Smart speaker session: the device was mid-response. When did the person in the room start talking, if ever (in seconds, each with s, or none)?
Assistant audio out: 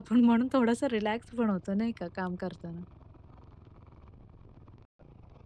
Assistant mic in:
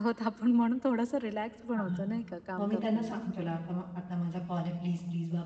1.7 s